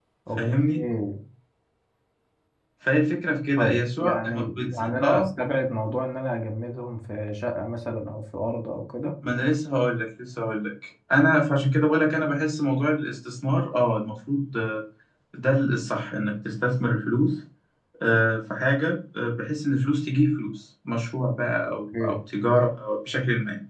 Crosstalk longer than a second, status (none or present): present